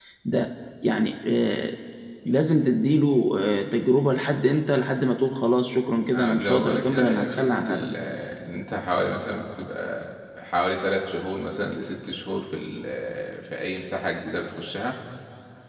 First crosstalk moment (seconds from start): 6.1 s

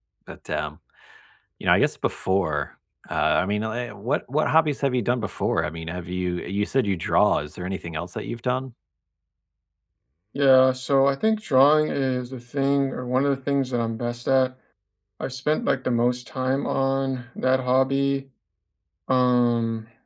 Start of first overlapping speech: none

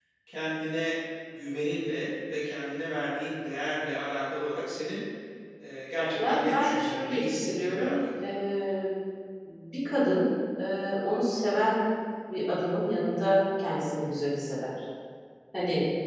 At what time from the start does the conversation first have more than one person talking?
6.2 s

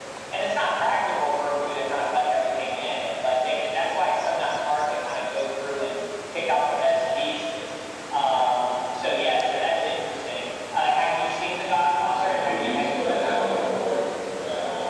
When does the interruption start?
12.1 s

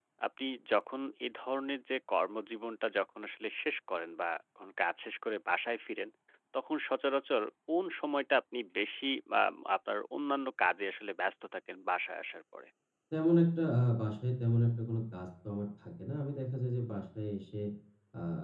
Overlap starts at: none

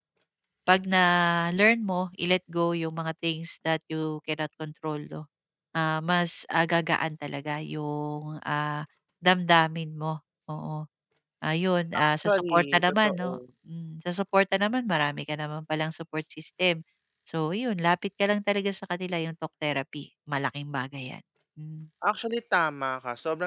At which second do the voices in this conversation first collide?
12.0 s

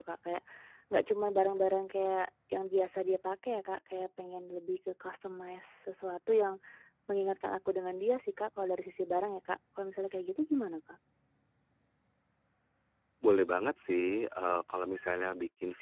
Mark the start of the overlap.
none

